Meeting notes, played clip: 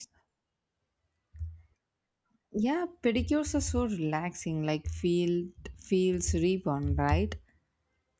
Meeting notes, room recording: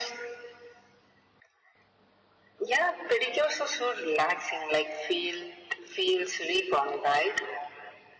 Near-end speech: none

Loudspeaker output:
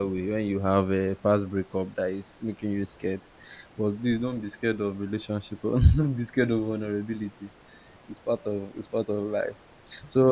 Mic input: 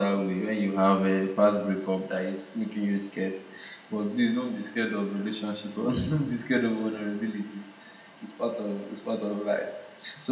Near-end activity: none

